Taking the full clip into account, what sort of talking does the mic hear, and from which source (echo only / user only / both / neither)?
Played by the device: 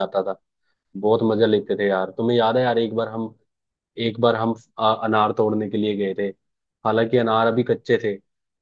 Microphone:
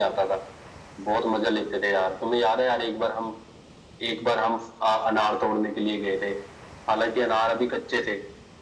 echo only